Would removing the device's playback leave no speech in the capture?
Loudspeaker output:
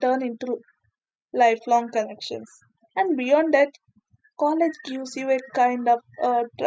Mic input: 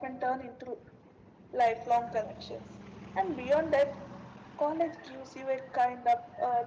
Yes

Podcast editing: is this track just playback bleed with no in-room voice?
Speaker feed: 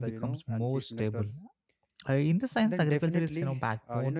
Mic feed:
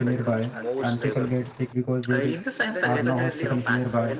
No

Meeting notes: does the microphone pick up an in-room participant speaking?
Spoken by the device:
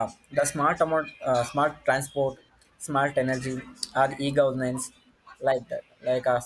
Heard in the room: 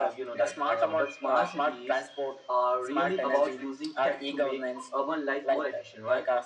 Yes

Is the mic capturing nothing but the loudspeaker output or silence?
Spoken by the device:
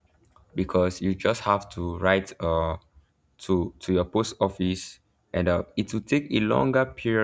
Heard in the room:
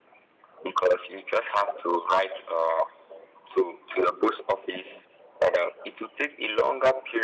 Yes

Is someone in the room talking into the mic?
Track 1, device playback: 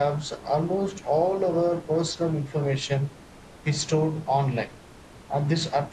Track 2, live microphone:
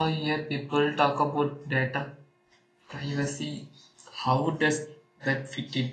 Yes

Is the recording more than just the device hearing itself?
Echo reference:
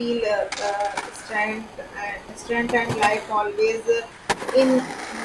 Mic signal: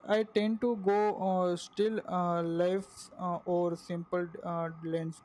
Yes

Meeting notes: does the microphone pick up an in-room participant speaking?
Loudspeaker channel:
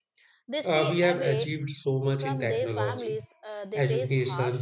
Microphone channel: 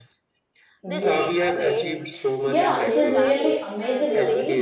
Yes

